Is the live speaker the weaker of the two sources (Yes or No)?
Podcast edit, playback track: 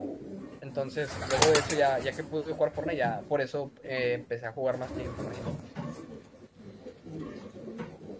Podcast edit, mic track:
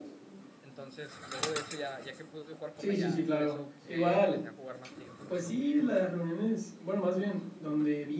No